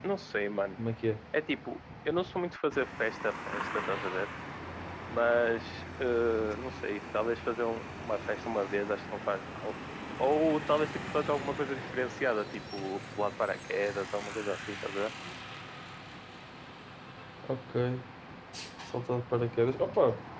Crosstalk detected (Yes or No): No